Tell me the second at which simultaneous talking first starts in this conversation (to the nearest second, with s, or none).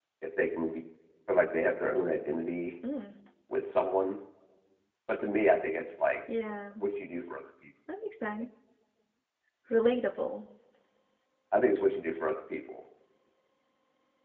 none